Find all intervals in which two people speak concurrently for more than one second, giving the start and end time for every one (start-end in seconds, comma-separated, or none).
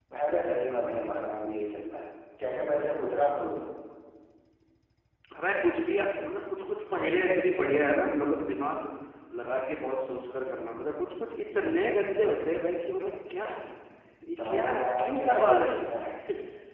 14.3-15.8